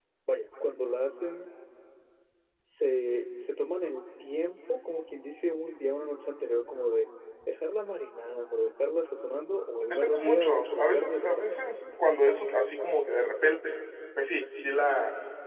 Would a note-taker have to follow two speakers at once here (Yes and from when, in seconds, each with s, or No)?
Yes, from 9.9 s